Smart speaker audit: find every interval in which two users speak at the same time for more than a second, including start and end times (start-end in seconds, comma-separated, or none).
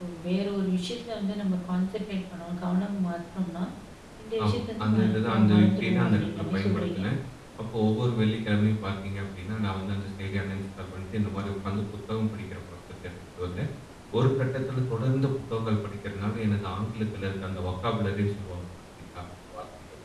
4.4-7.0